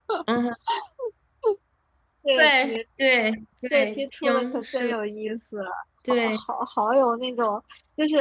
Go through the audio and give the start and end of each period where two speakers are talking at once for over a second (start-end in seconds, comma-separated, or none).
3.7-4.9